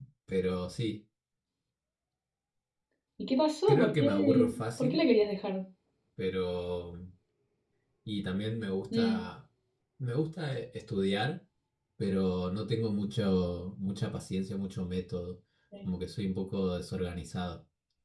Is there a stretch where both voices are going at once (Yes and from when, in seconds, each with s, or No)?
Yes, from 3.7 s